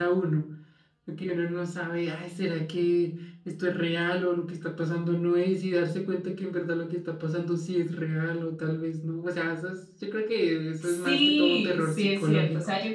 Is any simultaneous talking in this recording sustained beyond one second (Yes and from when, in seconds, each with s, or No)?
Yes, from 10.8 s